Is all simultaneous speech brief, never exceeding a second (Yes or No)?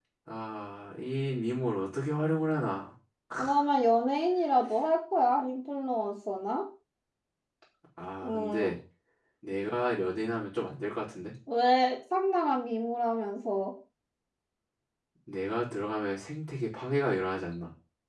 Yes